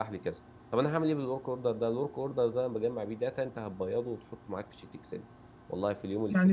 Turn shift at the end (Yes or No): Yes